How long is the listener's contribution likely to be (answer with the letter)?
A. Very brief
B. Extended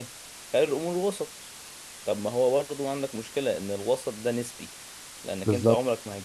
A